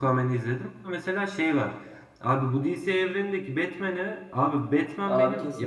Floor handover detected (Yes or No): No